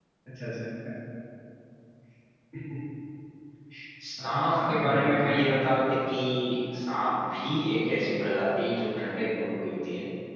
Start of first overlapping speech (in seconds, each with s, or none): 4.3 s